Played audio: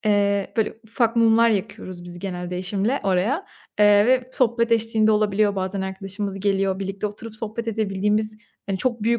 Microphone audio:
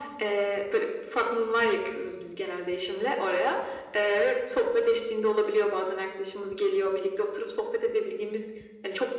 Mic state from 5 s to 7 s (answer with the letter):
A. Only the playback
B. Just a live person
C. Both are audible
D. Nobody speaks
A